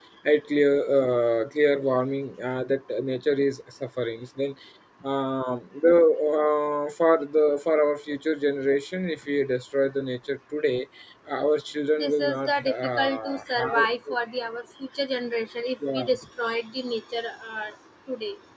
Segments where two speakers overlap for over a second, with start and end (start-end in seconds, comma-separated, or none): 12.0-13.9